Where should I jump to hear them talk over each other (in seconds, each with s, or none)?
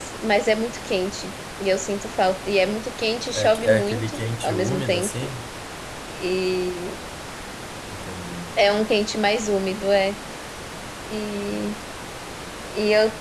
3.3 s